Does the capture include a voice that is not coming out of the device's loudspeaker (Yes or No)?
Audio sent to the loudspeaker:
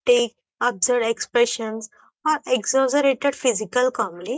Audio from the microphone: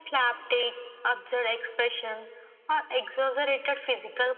No